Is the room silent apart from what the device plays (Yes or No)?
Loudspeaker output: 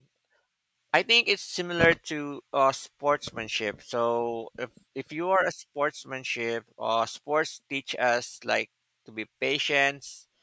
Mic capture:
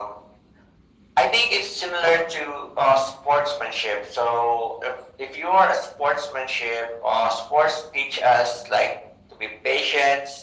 Yes